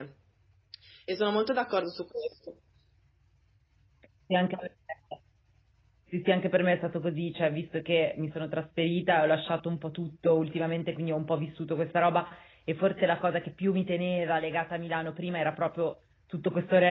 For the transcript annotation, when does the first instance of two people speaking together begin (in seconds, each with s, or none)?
none